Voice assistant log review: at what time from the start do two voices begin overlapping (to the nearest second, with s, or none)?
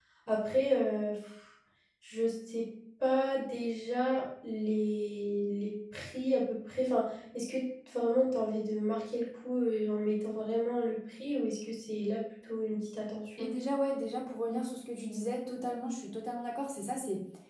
none